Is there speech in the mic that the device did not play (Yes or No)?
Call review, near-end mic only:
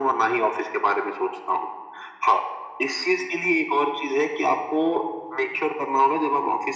No